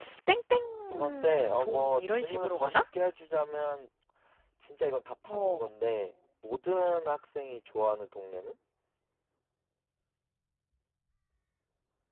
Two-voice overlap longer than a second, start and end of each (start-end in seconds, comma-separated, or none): 0.9-2.8